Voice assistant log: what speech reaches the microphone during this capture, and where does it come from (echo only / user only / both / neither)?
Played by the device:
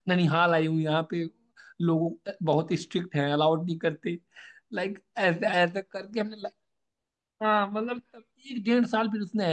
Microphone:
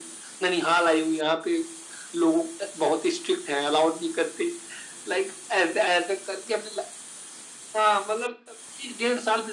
echo only